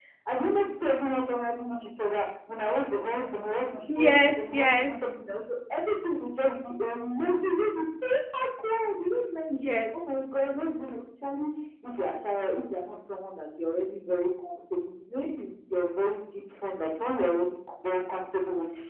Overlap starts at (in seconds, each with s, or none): 3.9 s